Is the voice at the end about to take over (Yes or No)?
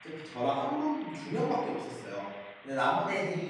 No